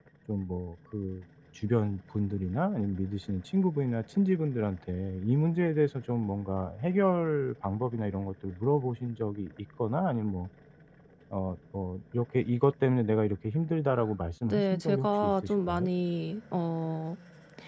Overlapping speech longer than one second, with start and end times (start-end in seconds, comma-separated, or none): 14.4-15.9